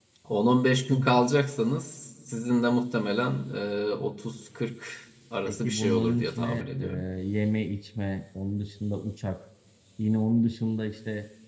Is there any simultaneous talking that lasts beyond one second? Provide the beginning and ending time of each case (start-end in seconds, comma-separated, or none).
5.4-6.8